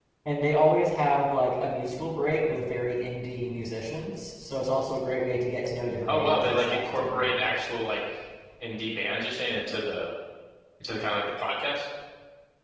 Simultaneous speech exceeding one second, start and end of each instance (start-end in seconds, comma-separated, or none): 6.1-7.3